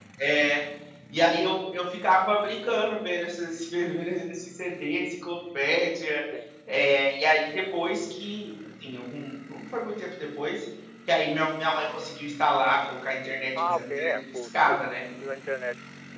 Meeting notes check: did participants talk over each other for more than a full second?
Yes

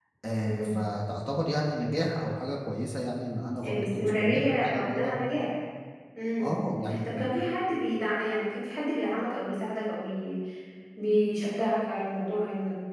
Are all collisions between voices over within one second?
No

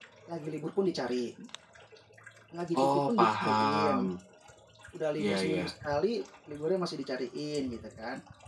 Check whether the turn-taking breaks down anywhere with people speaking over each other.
Yes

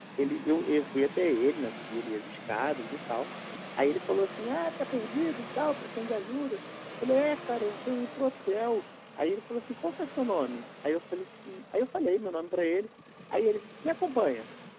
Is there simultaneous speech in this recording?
No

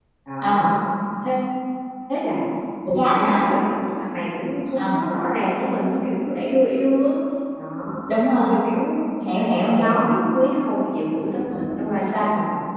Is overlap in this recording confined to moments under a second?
Yes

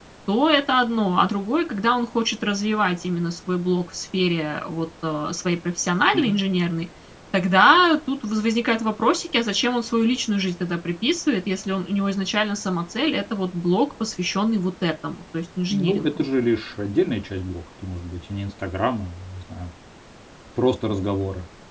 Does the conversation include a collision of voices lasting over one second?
No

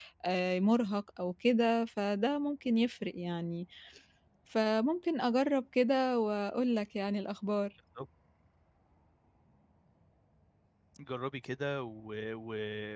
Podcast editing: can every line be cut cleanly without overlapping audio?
Yes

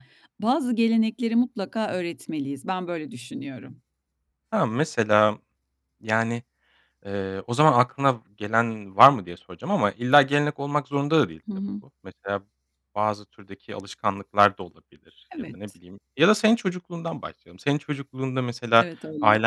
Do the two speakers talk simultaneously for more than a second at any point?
No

